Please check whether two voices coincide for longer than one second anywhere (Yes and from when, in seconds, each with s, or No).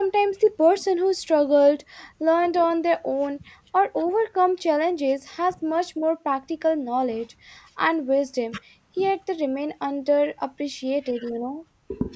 No